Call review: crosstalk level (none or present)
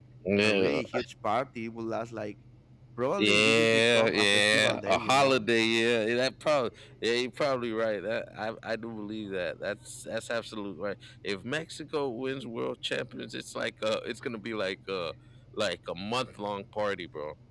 present